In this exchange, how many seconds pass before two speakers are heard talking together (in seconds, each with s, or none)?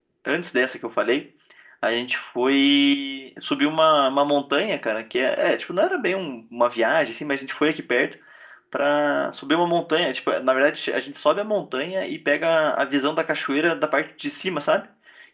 none